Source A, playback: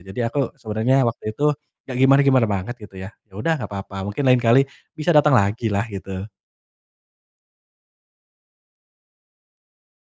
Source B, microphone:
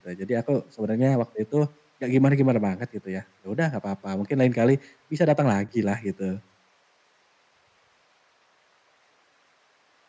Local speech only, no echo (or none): none